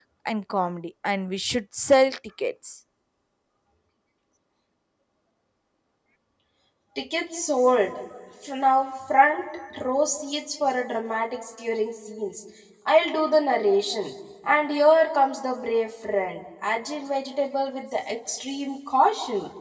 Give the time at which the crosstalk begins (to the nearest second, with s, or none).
none